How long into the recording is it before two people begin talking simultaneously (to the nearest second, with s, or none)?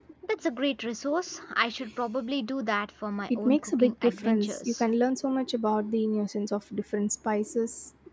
3 s